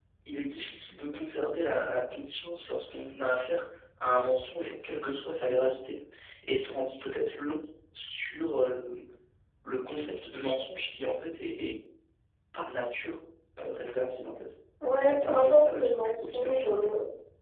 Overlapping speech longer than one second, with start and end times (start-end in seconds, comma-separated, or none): 15.2-16.9